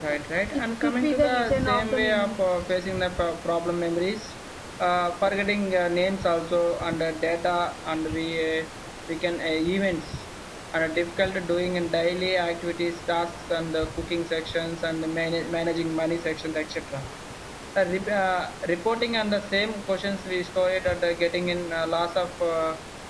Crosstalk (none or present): present